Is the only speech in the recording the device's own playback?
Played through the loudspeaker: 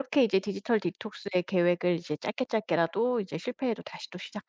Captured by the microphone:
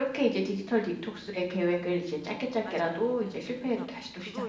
No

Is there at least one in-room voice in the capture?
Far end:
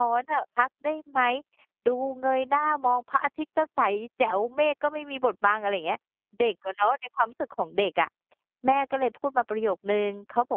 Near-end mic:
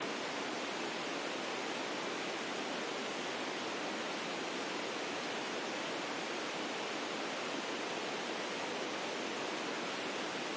No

